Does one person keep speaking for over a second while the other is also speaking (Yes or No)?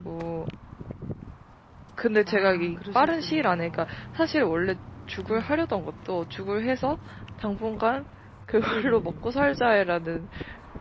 Yes